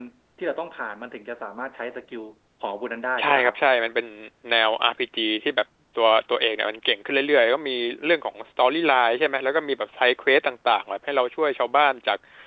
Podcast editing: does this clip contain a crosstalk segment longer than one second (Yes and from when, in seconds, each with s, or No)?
No